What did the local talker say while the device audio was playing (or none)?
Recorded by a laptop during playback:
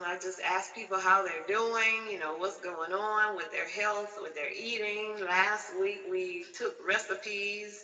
none